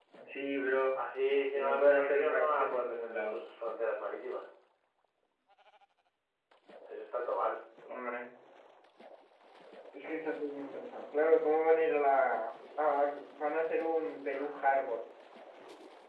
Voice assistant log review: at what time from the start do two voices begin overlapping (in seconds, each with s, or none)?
1.6 s